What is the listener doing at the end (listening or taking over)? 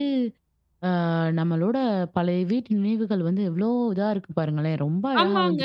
taking over